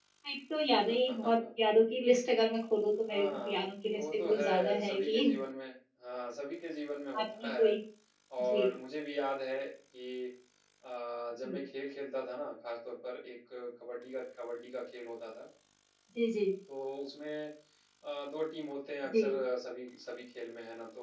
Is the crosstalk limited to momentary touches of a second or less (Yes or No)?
No